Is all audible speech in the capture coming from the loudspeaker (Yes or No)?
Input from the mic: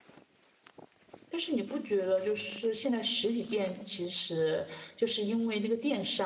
No